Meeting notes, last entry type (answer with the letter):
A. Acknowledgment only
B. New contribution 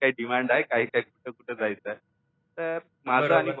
B